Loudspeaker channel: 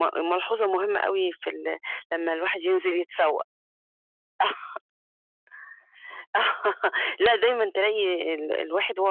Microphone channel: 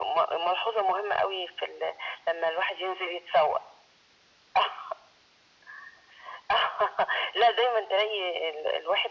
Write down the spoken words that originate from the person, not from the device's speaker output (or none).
none